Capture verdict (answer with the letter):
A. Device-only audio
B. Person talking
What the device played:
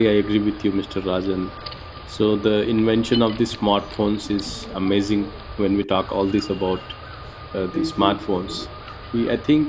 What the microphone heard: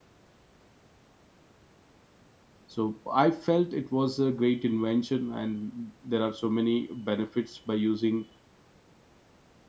B